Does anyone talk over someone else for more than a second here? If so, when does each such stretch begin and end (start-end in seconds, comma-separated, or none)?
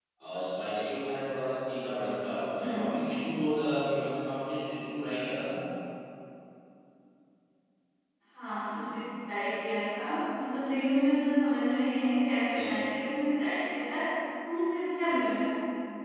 none